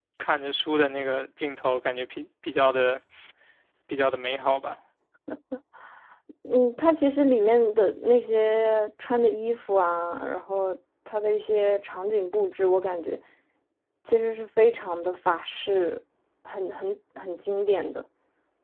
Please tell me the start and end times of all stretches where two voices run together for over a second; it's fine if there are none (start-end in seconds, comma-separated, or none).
none